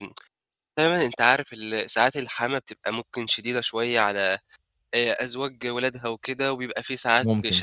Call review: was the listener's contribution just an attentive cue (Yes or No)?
Yes